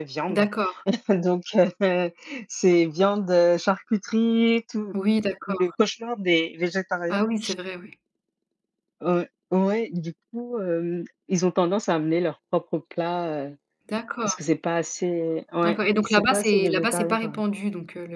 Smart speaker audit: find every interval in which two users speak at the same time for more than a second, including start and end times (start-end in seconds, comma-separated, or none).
15.6-17.3